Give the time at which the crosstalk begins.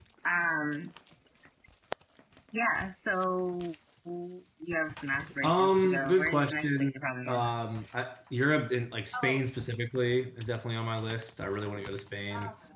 5.4 s

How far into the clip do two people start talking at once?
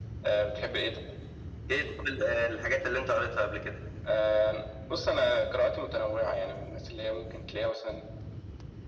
none

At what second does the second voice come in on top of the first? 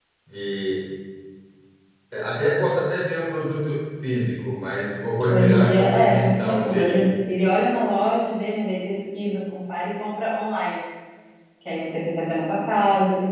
5.2 s

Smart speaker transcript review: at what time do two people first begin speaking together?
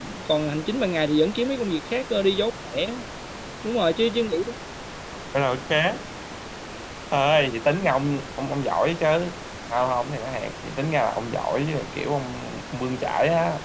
none

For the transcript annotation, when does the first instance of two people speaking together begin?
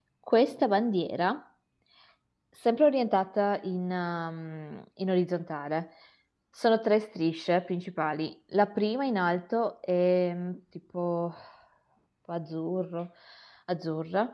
none

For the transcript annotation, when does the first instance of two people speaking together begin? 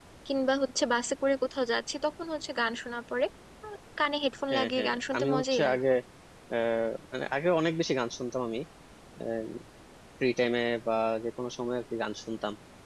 4.5 s

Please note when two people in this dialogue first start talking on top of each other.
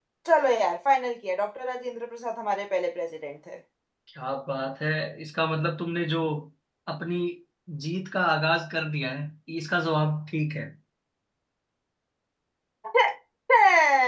none

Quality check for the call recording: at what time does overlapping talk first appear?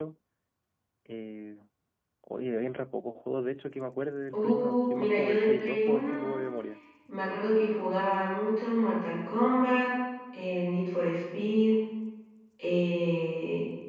4.3 s

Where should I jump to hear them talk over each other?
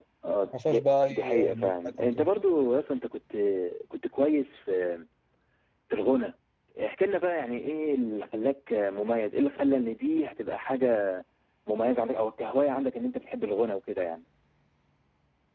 0.7 s

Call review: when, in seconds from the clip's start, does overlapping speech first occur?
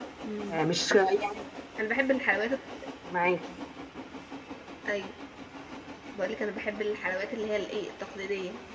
none

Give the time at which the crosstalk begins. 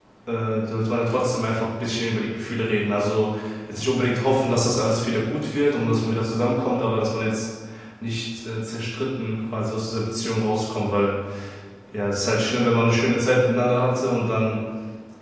none

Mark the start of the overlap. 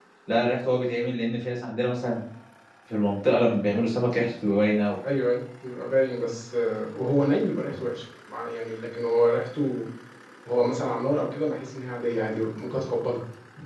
none

